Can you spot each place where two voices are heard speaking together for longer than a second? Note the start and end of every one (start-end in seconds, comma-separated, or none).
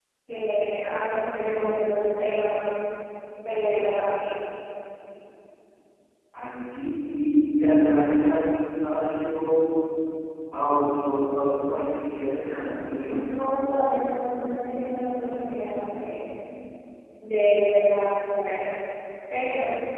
none